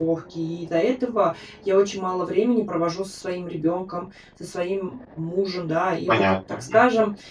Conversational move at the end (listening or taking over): listening